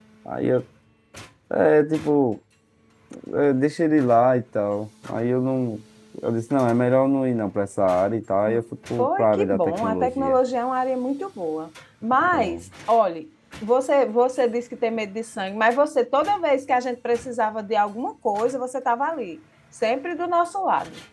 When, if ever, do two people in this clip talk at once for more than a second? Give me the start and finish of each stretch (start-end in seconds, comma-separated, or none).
9.0-10.4